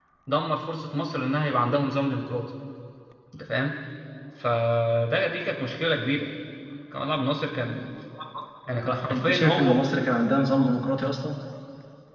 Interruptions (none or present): present